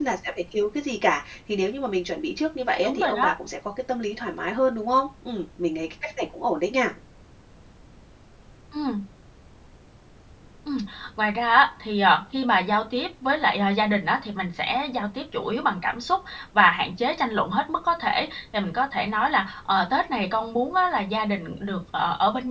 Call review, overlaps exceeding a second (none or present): none